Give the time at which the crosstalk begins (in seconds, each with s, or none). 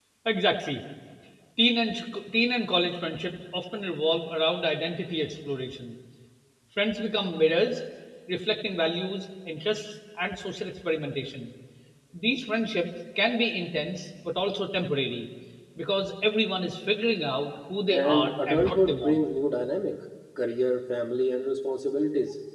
17.9 s